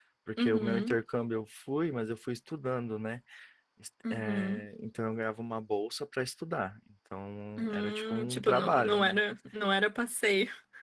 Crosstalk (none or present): present